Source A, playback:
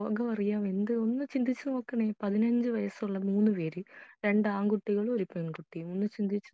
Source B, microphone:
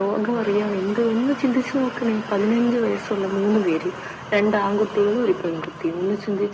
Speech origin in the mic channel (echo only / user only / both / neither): echo only